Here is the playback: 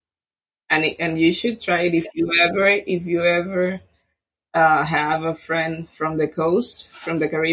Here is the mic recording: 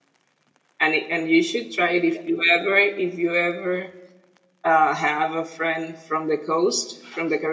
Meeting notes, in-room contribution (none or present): none